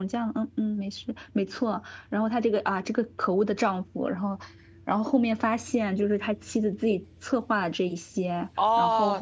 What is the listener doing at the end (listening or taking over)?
taking over